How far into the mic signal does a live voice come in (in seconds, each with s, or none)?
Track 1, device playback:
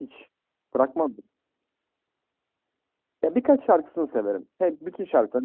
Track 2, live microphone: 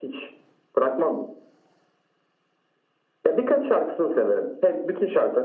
none